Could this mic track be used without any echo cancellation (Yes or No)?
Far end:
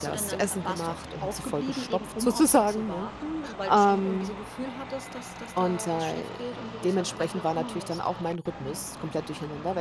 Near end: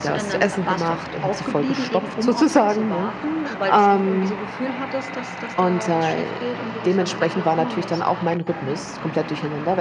No